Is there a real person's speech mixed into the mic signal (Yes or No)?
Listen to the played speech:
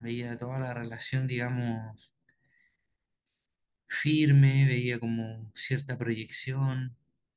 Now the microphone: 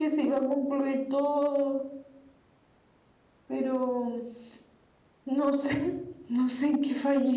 Yes